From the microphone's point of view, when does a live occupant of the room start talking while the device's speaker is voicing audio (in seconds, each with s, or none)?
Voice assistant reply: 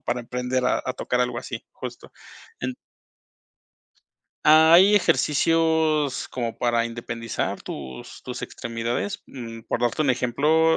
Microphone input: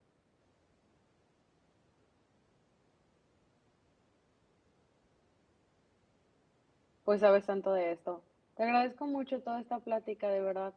7.0 s